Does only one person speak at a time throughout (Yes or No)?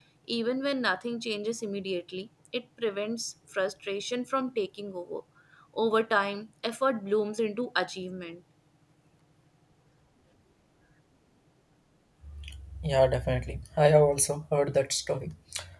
Yes